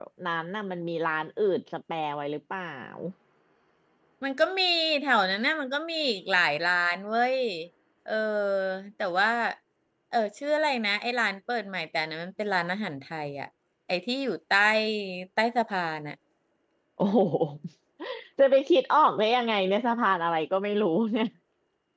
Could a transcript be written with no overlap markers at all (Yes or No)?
Yes